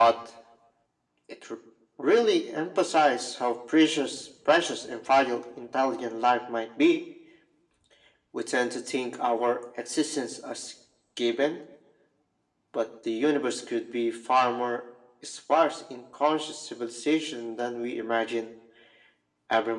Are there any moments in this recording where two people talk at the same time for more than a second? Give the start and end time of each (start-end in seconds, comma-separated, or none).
none